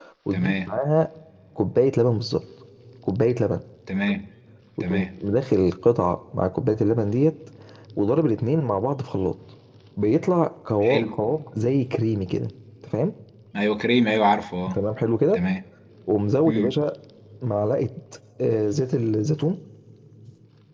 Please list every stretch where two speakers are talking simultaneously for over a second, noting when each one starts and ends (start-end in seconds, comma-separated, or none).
none